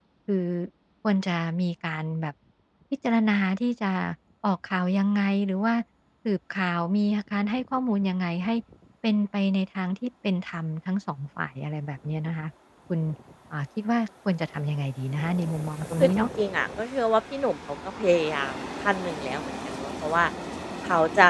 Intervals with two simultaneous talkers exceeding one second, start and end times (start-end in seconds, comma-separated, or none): none